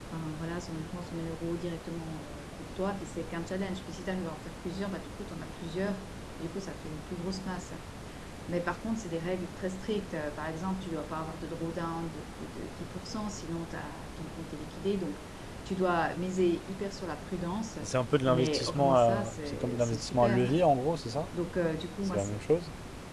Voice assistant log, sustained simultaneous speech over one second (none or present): present